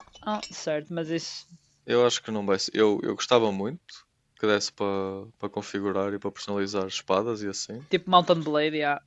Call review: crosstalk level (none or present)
none